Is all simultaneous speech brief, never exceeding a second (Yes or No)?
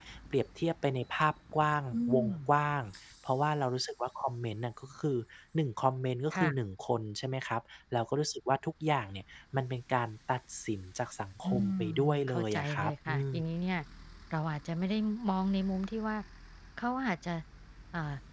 No